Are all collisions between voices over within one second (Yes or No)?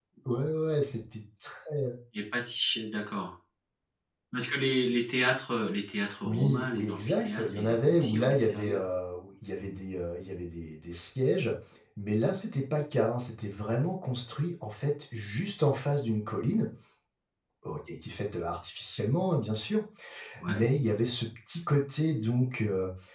No